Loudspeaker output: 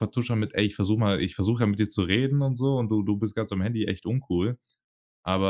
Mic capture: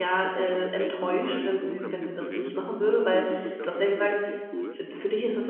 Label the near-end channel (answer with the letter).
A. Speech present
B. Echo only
A